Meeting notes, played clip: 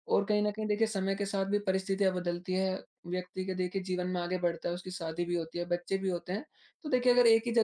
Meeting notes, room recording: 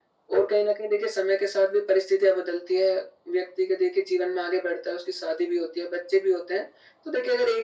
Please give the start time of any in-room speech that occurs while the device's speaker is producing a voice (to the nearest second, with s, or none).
none